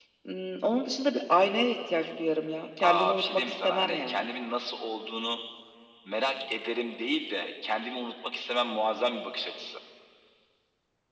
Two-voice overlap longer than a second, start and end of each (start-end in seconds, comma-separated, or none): 2.8-4.3